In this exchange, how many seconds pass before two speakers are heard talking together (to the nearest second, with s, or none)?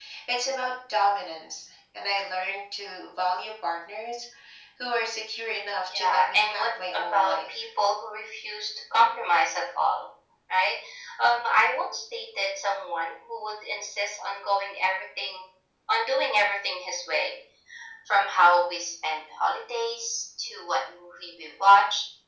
6 s